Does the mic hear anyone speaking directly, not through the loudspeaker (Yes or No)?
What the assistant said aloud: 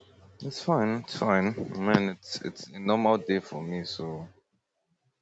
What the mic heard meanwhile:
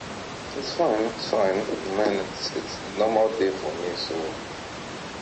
No